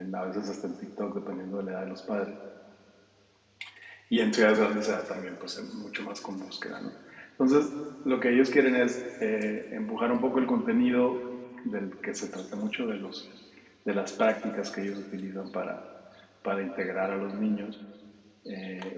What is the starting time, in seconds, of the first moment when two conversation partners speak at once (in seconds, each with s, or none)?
none